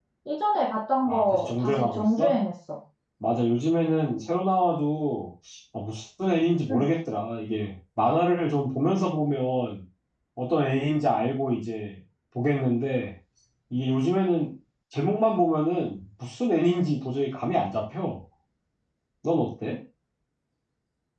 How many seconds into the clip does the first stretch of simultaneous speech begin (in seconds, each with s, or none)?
1.1 s